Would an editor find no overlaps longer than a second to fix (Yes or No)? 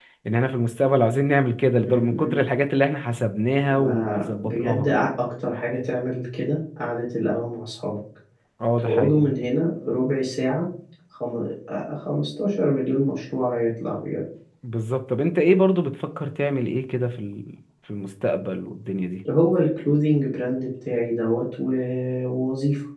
No